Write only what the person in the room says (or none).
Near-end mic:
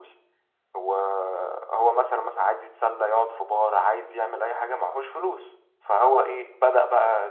none